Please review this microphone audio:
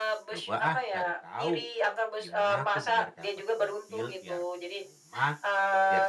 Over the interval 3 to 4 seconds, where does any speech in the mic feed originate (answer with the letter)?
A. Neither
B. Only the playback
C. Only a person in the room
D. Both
D